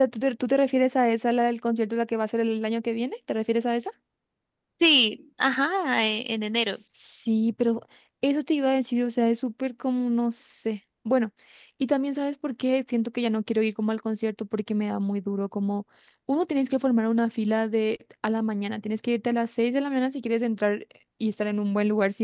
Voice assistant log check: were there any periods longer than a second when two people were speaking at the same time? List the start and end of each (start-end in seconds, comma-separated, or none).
none